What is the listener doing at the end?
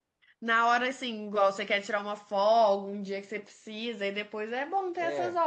taking over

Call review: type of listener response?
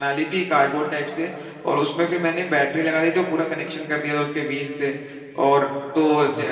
listening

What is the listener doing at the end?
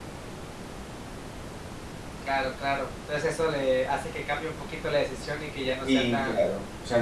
taking over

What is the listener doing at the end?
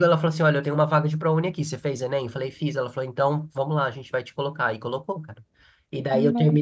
listening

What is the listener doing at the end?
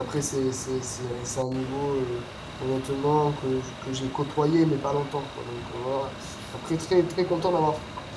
listening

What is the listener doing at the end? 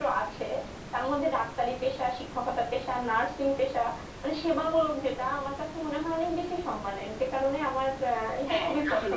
taking over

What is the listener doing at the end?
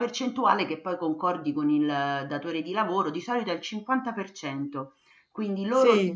listening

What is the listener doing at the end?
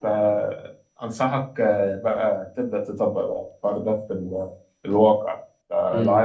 listening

